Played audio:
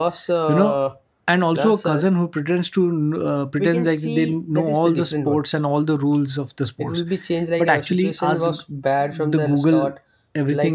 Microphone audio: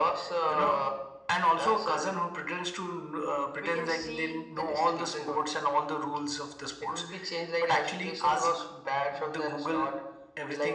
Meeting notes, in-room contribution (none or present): none